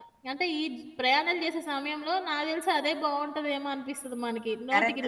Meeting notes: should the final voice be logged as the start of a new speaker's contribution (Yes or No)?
Yes